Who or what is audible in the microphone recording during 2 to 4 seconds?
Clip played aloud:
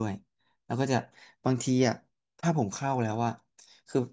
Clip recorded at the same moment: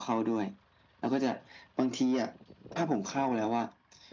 echo only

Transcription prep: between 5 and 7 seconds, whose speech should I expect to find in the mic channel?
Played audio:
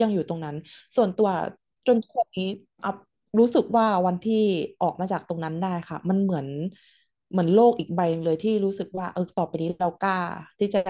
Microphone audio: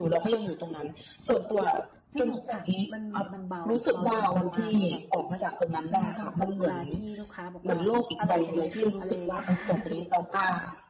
both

